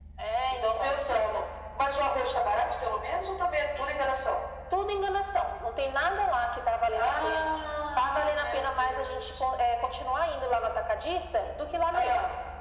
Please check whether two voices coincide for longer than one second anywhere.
Yes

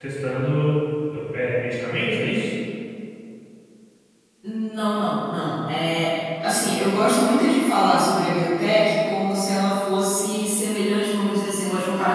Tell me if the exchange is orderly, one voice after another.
Yes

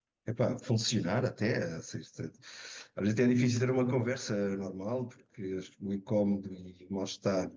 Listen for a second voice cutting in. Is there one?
No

